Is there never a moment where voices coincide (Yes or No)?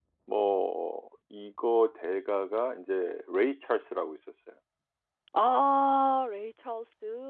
Yes